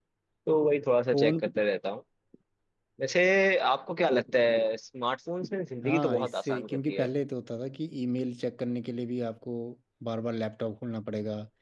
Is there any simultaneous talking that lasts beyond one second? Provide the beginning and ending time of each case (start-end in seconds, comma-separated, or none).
5.8-7.1